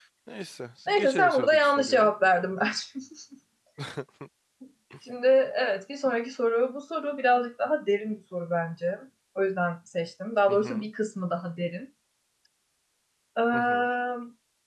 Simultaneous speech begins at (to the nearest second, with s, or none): 1 s